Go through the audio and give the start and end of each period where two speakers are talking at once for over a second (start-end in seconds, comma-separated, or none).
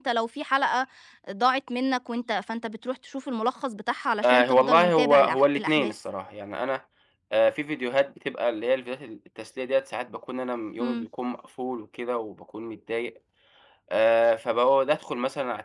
4.2-5.9